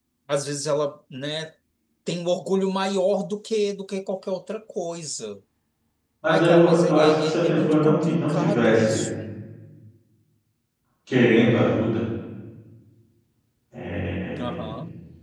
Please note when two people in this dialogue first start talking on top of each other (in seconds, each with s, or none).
6.2 s